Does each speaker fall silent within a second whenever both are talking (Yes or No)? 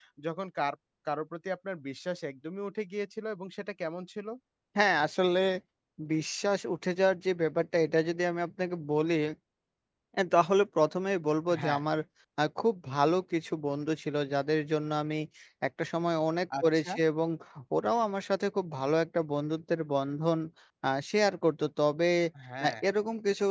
Yes